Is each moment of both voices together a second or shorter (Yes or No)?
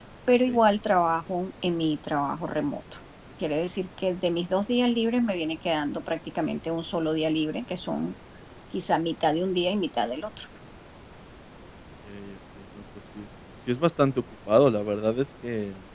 Yes